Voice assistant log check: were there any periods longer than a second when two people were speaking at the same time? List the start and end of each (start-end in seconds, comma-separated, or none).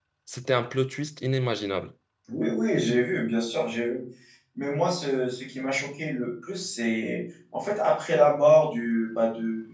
none